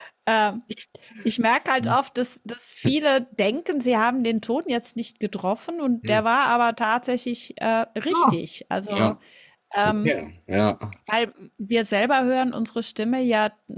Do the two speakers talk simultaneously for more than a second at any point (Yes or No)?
No